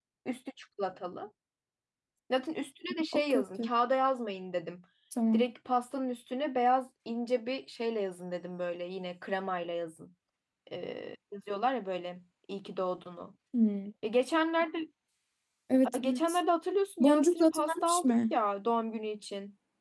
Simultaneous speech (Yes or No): Yes